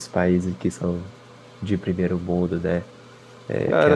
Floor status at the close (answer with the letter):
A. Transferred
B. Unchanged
A